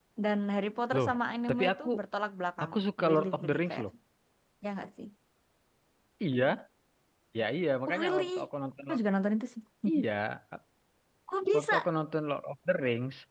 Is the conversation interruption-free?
No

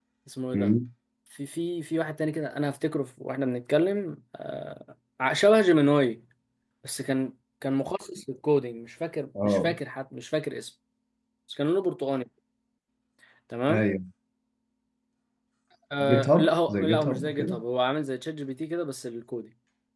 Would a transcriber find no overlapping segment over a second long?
No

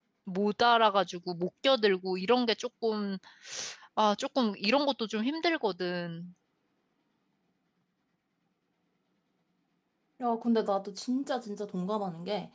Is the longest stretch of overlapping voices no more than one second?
Yes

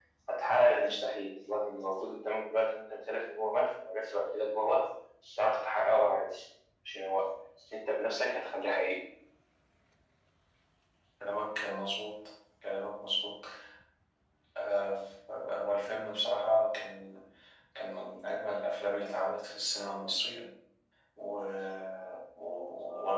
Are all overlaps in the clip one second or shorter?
Yes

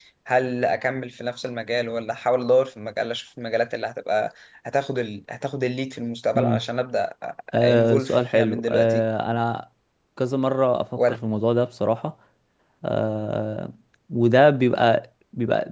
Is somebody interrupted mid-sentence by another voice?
Yes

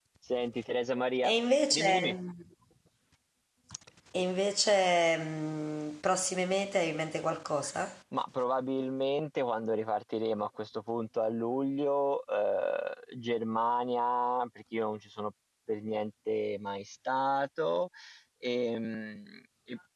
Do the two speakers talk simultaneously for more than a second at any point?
No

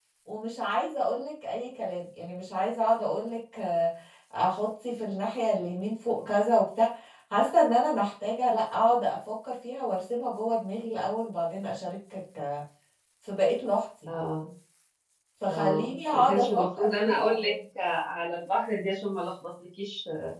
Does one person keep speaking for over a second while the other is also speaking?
Yes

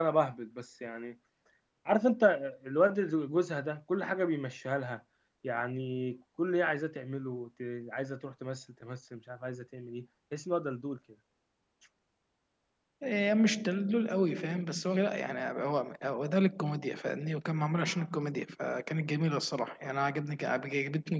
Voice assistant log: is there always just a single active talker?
Yes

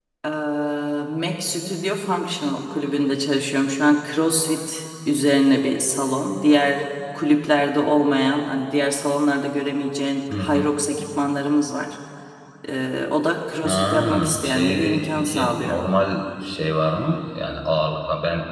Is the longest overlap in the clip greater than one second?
Yes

